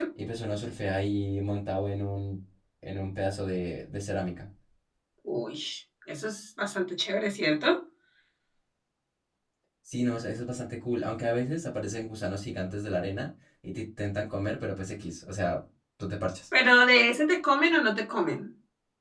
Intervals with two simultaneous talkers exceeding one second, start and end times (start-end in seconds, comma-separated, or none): none